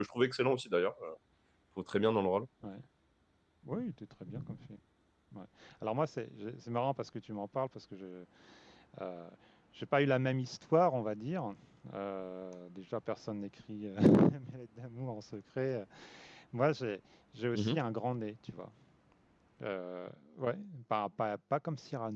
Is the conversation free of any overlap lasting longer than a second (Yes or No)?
Yes